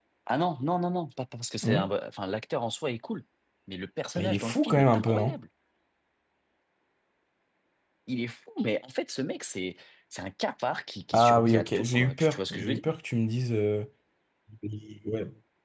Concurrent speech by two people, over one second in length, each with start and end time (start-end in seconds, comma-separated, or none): 4.2-5.4, 11.1-12.9